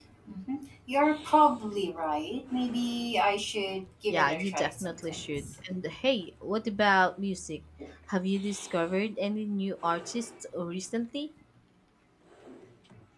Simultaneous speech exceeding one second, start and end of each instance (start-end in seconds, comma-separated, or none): 4.1-5.5